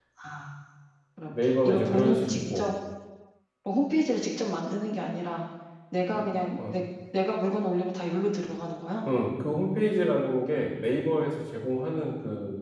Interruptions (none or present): present